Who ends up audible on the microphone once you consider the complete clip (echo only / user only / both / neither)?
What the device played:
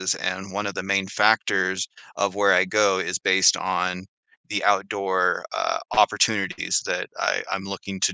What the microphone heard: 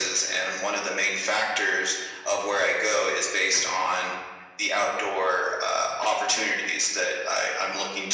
echo only